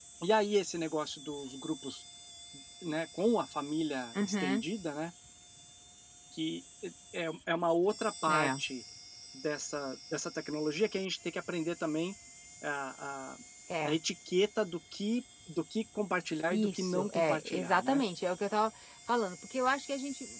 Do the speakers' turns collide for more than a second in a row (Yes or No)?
Yes